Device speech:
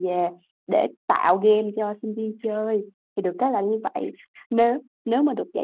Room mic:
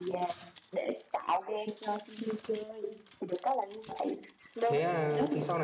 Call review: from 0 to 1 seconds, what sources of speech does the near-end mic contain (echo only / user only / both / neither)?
echo only